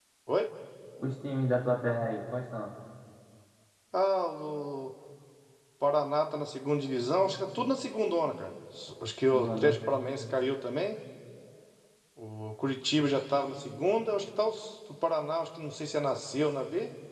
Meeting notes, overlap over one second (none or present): none